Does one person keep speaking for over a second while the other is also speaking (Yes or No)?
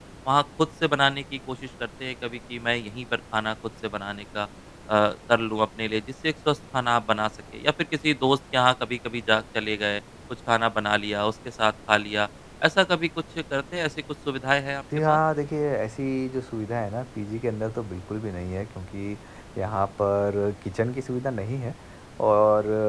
No